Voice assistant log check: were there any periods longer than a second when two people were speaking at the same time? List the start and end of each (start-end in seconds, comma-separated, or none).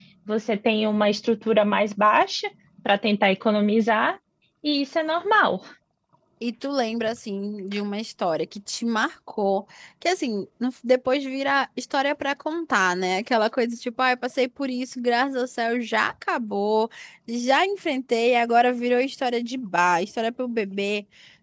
none